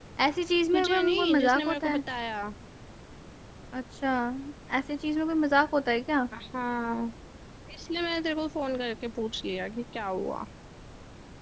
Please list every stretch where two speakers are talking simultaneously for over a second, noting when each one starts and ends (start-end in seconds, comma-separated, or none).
0.7-2.0